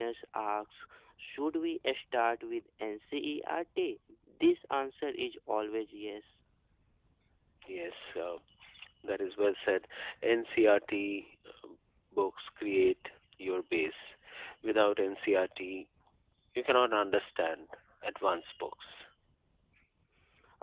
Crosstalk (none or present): none